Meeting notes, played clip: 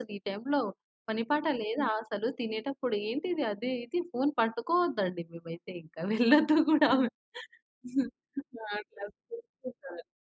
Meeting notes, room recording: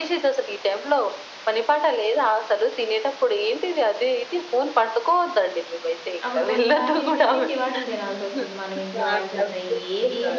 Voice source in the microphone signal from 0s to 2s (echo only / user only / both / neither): echo only